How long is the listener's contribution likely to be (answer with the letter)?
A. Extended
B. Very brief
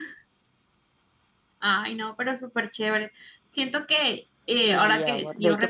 A